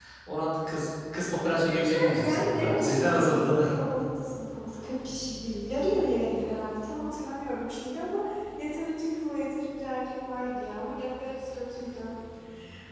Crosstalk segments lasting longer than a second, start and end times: 1.6-3.6

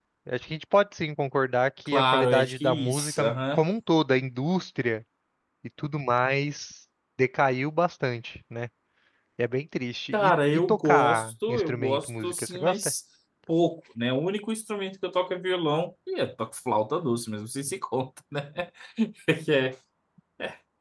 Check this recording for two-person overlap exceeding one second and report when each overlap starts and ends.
1.9-3.6, 10.1-12.8

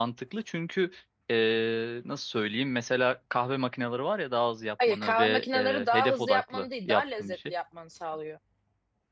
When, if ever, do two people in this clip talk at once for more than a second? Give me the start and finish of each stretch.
4.9-7.5

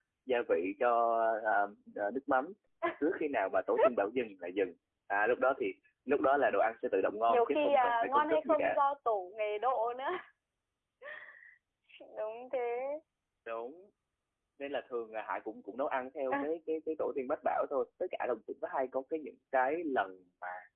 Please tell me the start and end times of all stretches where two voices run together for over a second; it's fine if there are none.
7.3-8.8

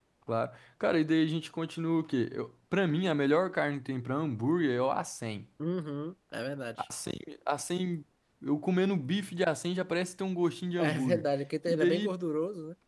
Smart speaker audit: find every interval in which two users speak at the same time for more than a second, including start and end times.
none

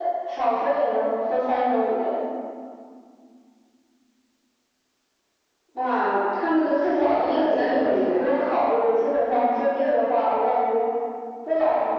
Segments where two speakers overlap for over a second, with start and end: 6.8-8.5

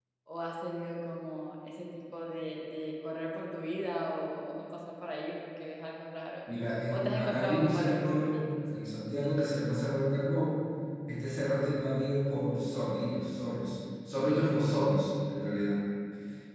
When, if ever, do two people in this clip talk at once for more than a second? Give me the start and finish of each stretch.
6.9-8.5

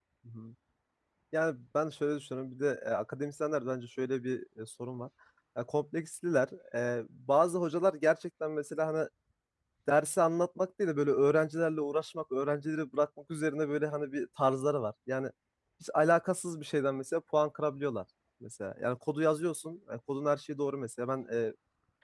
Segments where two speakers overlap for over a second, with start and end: none

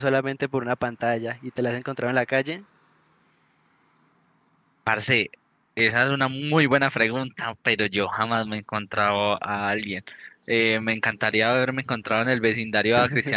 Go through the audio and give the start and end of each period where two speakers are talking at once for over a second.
none

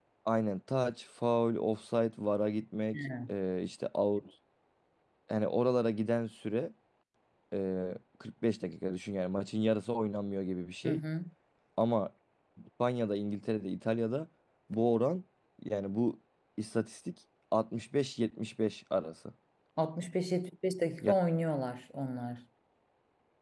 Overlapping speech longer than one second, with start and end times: none

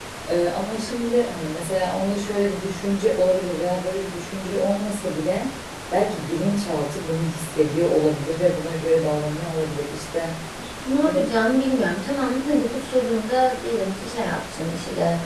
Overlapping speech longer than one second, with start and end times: none

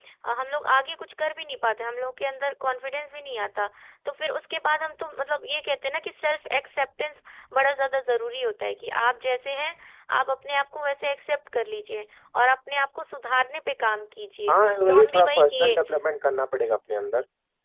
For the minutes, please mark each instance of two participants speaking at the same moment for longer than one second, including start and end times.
14.5-15.8

